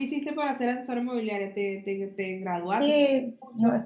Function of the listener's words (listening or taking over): taking over